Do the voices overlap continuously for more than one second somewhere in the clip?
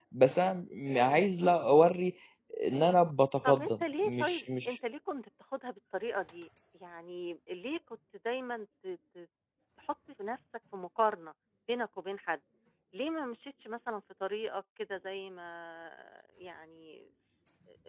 Yes, from 3.5 s

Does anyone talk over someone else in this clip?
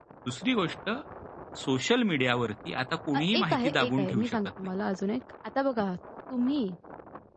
Yes, from 3.1 s

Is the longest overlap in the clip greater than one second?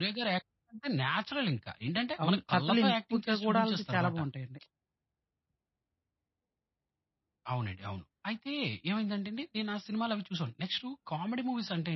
Yes, from 2.2 s

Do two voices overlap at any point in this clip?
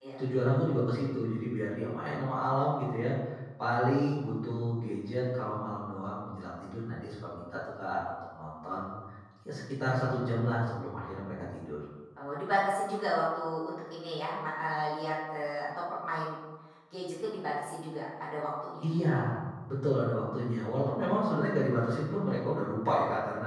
No

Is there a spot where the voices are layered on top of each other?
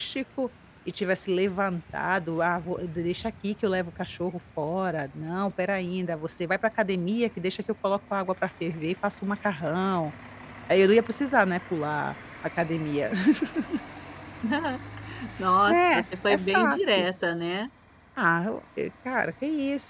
Yes, from 15.7 s

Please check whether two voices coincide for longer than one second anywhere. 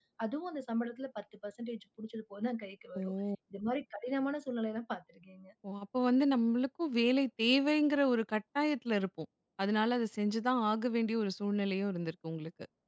No

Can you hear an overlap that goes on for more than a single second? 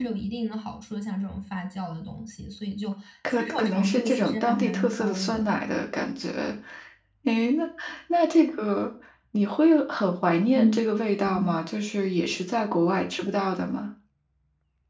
Yes, from 3.3 s

